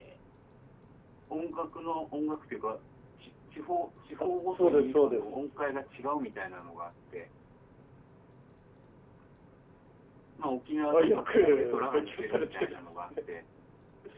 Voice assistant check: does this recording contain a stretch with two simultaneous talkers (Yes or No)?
Yes